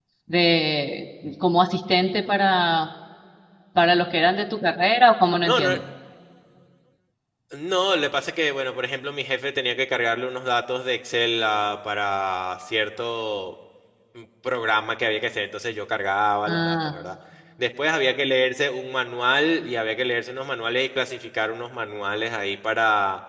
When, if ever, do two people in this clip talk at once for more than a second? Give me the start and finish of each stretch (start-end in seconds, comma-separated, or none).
none